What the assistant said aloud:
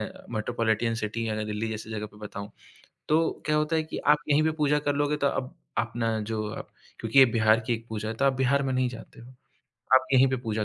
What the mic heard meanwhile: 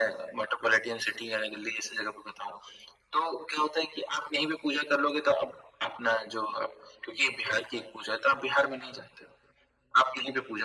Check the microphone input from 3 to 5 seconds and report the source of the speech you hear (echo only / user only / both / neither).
echo only